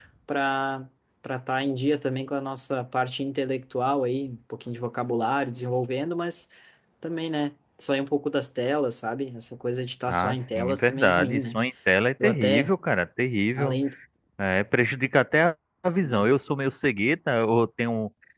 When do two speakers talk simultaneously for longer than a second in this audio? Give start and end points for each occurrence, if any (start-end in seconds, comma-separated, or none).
10.1-11.6